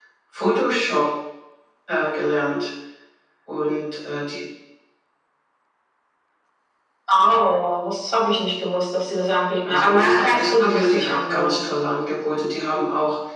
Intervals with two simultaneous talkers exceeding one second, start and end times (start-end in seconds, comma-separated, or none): 9.7-11.7